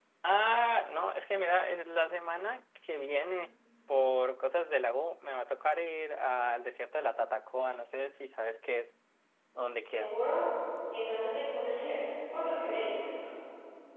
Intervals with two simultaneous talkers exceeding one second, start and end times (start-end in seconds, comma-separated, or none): none